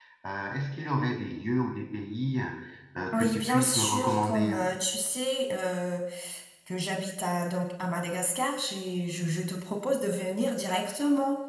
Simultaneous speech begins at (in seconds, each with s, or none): 3.1 s